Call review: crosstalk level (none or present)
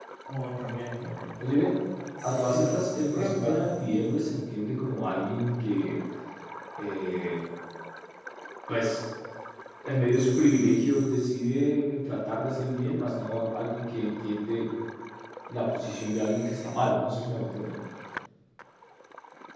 present